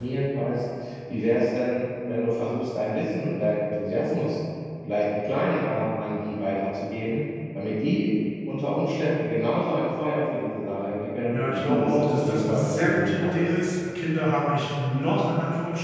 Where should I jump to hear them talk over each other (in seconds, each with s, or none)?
11.3 s